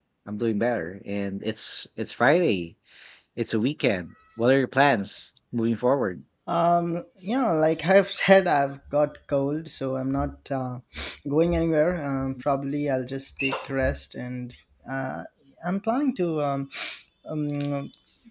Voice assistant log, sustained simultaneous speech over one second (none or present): none